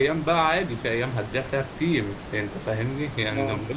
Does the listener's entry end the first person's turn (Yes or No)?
No